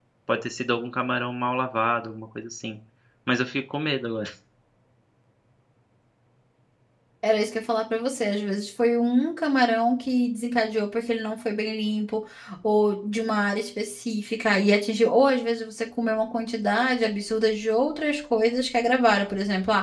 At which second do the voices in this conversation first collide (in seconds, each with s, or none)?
none